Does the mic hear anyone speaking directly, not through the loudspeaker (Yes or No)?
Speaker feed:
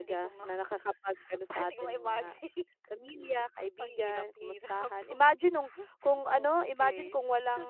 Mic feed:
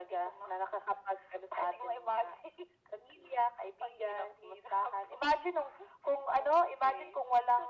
No